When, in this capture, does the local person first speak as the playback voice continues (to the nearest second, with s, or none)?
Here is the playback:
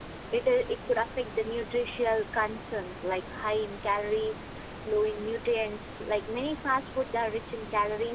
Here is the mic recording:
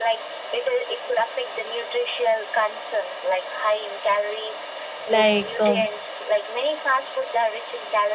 5 s